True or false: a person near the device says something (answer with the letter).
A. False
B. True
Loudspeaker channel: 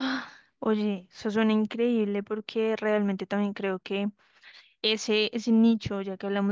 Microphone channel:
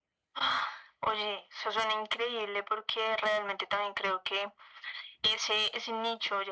A